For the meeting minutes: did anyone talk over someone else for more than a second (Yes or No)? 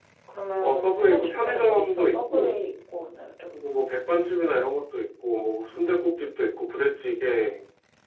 Yes